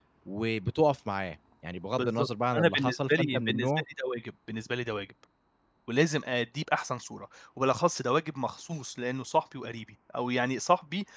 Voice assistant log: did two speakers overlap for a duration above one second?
Yes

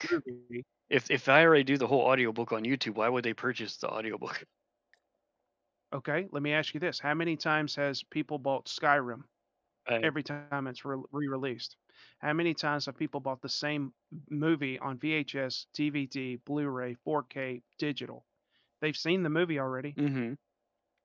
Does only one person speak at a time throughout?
Yes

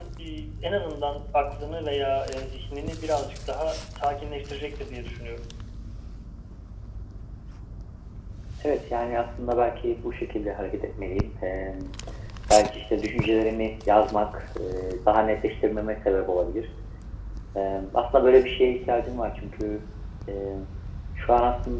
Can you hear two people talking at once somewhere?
No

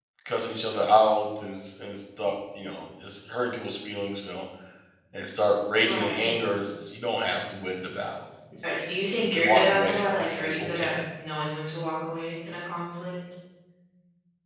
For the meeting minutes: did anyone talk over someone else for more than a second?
Yes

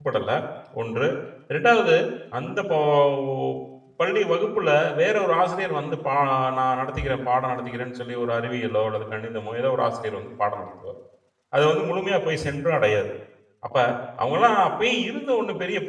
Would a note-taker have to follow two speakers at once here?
No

